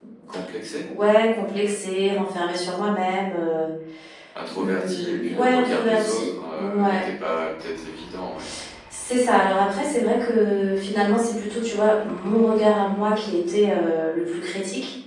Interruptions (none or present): present